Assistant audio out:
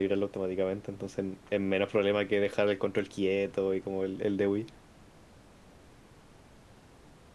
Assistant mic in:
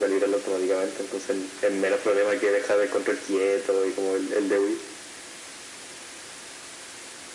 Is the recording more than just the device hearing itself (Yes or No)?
No